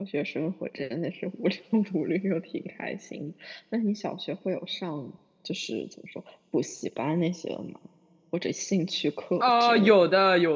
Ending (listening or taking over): taking over